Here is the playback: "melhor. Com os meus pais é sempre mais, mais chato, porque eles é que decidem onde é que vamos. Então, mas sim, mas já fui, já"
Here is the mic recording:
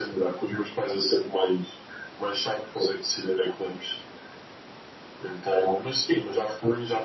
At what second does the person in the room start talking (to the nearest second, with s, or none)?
none